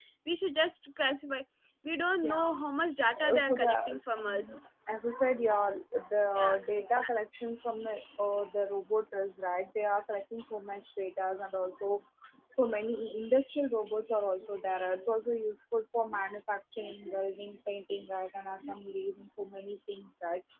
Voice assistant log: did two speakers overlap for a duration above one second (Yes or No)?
Yes